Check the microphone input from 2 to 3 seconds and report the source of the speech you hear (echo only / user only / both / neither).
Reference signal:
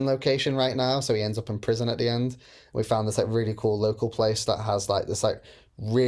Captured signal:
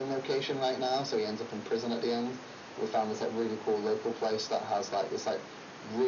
echo only